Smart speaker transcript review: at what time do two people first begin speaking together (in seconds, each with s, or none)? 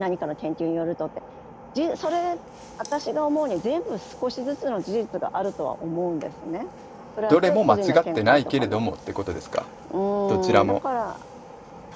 7.3 s